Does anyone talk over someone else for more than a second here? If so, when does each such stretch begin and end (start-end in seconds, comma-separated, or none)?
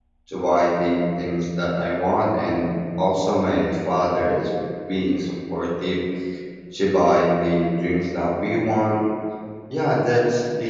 none